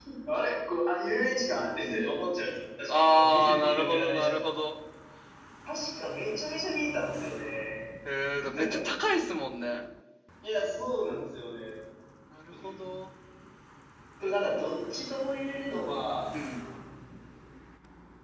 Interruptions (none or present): present